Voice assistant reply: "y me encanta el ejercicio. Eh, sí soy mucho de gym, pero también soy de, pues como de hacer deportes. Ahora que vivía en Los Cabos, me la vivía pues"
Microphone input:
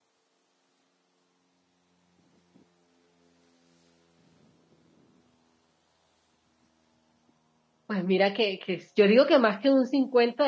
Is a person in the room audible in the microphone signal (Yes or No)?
Yes